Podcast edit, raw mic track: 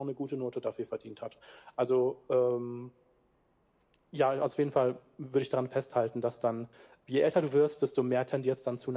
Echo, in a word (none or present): present